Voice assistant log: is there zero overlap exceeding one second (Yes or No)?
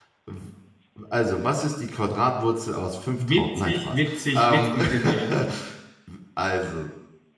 No